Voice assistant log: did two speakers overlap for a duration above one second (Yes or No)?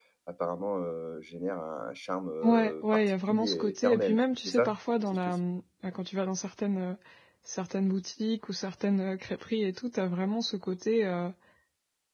Yes